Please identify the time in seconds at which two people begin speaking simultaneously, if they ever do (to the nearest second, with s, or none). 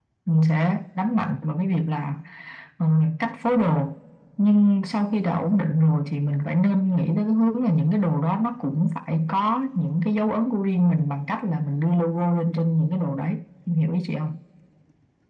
none